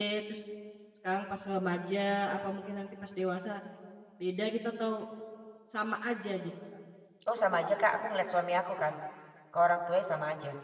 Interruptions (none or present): none